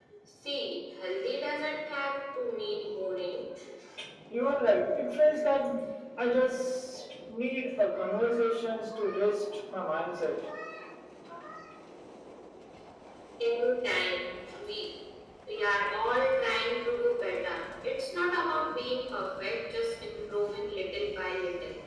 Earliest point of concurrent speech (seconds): none

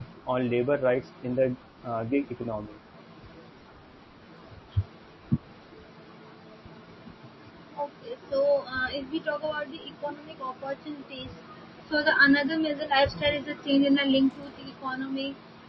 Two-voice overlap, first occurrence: none

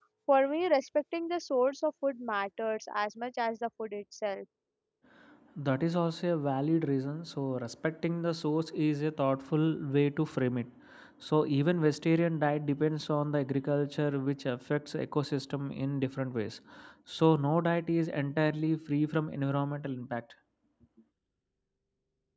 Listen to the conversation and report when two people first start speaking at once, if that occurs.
none

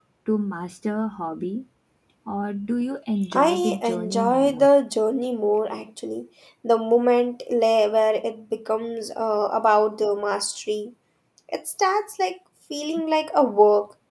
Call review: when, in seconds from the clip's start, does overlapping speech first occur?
3.3 s

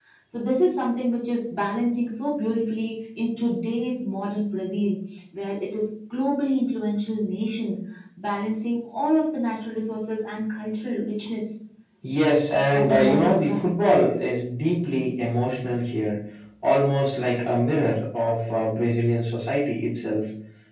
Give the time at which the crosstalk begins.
12.7 s

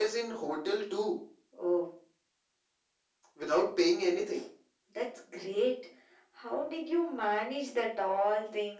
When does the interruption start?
none

